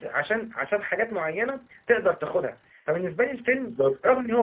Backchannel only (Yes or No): Yes